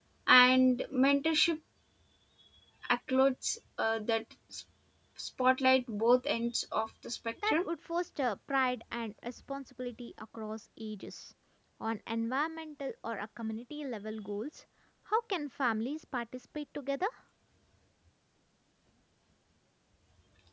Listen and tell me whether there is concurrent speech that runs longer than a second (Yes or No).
No